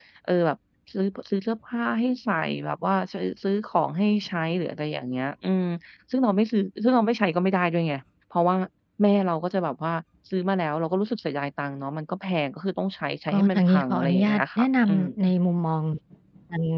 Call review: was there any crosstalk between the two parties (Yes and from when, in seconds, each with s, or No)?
Yes, from 13.3 s